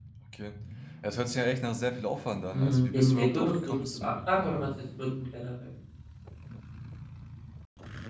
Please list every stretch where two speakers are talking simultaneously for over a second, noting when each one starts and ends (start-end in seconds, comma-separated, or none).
2.5-4.2